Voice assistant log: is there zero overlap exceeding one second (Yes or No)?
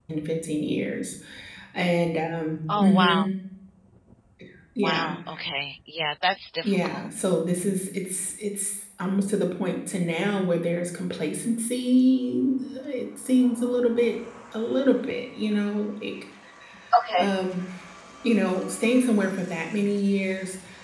Yes